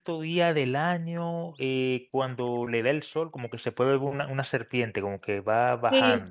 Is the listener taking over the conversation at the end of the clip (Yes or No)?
Yes